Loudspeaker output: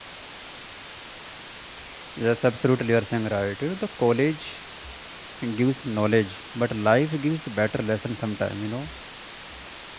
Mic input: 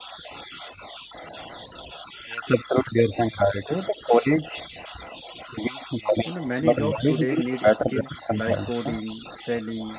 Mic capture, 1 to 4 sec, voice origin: echo only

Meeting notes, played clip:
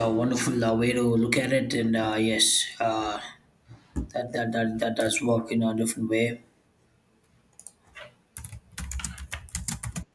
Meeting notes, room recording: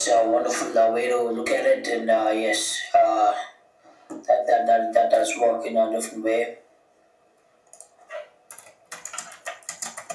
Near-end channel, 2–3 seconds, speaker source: echo only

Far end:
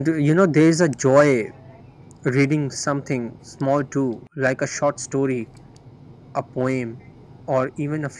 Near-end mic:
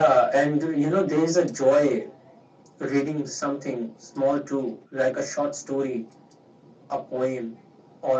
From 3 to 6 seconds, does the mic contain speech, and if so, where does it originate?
echo only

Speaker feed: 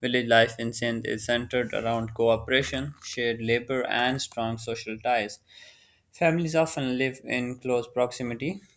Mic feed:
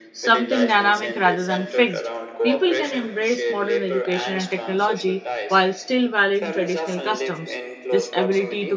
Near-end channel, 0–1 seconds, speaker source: both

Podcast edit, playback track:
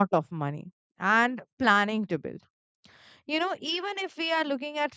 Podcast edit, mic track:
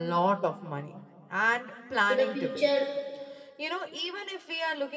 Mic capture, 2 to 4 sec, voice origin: both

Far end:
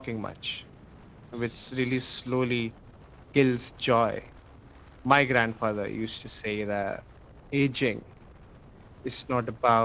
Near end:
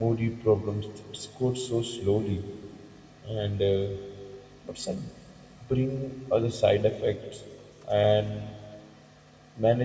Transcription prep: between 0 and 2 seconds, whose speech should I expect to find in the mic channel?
user only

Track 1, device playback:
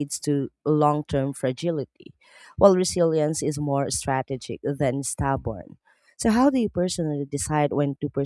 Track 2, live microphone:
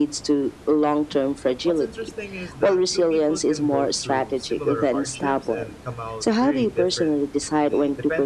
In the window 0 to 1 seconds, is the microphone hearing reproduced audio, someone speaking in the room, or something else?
echo only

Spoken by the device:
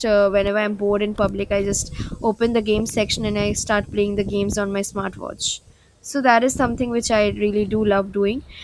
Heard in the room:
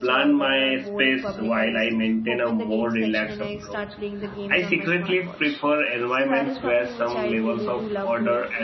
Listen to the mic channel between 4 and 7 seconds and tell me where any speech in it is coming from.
both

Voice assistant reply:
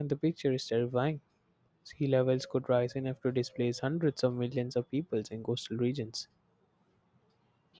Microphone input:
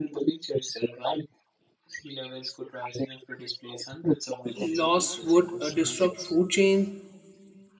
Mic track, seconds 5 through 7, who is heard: both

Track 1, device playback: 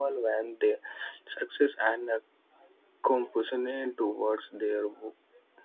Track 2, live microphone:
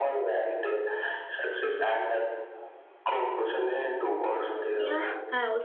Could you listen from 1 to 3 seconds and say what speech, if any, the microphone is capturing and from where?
echo only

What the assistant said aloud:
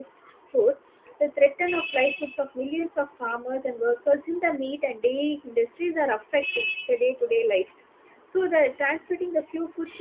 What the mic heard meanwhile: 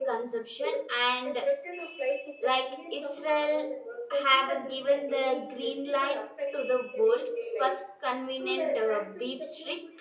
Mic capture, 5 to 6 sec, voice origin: both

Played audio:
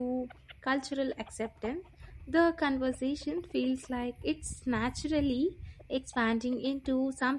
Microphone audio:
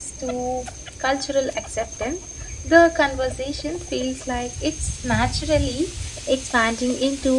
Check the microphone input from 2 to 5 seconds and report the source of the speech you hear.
echo only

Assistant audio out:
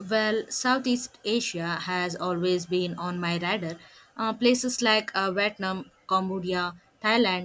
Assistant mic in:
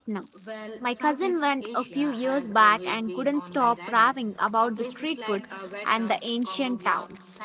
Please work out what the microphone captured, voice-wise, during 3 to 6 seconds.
both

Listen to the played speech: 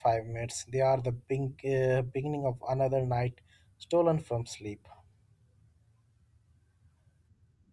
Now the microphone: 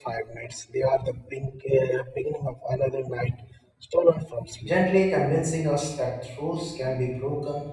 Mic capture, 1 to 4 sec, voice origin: echo only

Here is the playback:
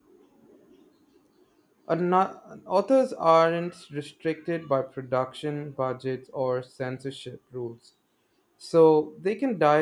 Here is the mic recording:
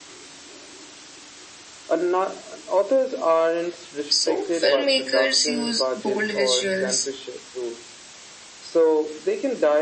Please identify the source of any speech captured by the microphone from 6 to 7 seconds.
both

